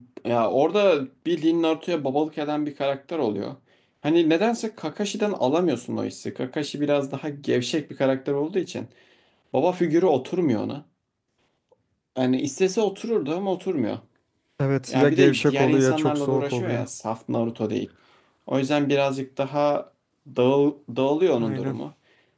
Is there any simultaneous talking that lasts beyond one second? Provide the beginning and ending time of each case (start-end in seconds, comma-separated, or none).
14.9-16.9